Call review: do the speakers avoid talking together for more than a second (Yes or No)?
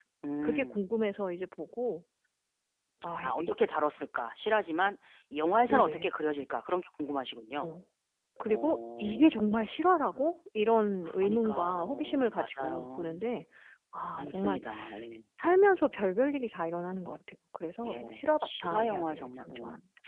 No